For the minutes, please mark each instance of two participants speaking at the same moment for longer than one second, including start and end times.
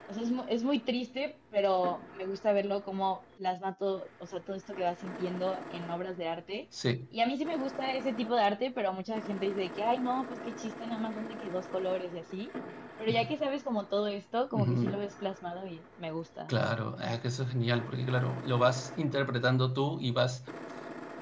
none

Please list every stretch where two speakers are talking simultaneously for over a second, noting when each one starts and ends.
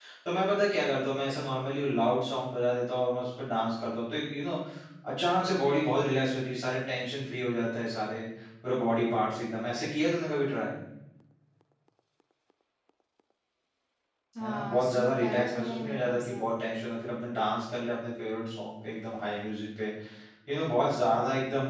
14.4-16.4

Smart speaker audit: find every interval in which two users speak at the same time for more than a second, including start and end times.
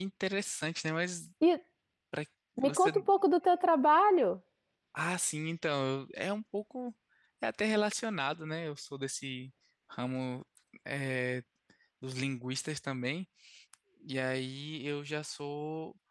none

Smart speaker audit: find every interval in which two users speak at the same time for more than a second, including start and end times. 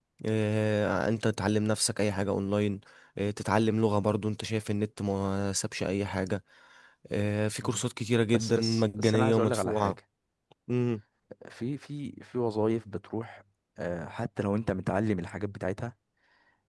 8.3-10.0

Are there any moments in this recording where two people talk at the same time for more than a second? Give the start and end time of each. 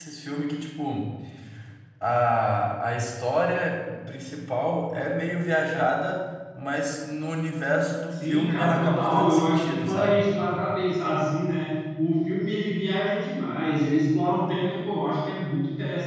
8.1-10.2

